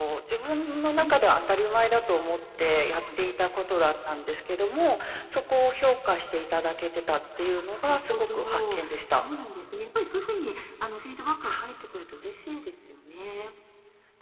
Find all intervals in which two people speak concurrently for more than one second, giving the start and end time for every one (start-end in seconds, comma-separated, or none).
7.6-9.2